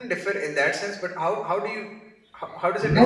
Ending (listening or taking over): taking over